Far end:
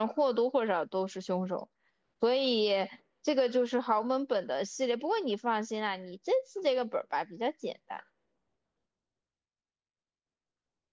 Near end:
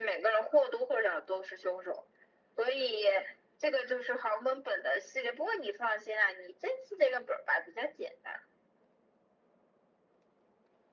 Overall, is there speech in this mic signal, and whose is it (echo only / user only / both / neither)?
echo only